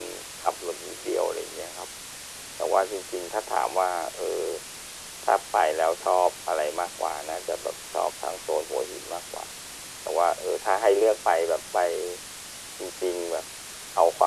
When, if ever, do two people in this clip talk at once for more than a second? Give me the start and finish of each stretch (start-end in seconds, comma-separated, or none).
none